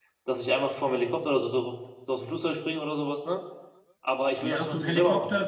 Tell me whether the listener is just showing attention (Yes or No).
No